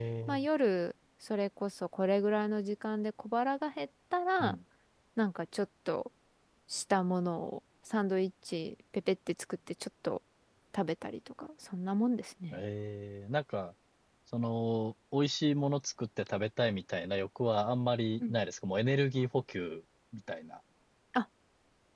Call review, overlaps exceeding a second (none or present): none